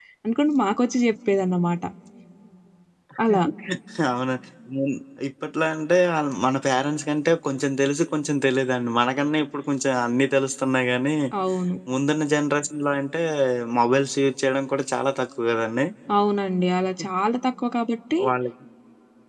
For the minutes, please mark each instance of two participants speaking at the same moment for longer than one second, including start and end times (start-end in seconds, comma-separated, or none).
none